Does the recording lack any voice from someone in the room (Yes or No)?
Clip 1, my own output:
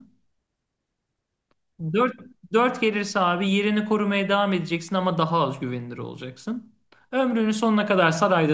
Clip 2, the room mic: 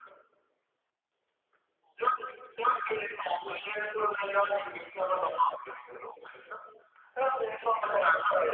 Yes